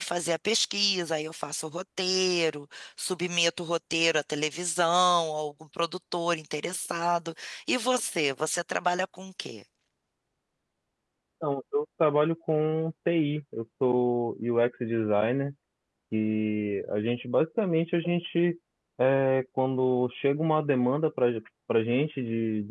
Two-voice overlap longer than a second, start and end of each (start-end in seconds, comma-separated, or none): none